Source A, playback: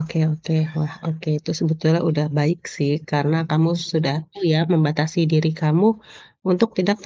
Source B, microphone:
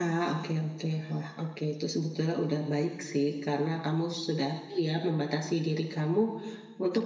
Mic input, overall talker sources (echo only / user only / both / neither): echo only